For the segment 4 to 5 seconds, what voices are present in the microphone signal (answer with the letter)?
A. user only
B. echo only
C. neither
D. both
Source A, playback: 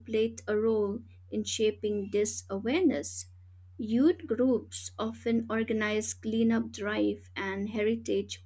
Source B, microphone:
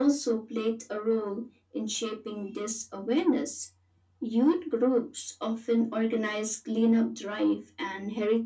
B